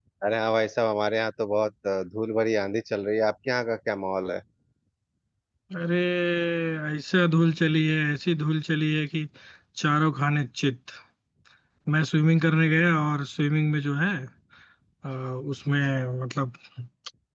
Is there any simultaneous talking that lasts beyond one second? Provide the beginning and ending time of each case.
none

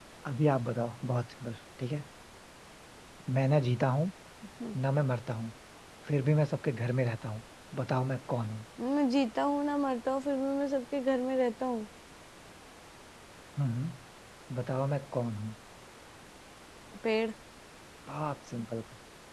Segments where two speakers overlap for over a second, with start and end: none

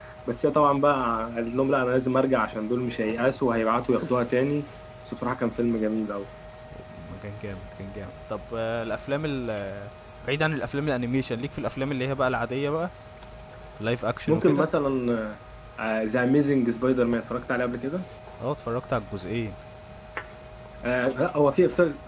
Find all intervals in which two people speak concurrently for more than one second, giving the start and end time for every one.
none

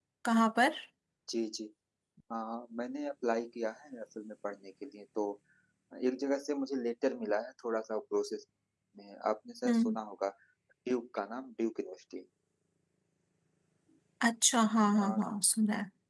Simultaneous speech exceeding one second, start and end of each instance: none

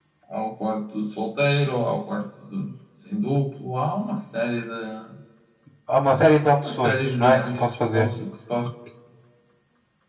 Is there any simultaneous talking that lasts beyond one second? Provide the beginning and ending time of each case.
6.6-8.1

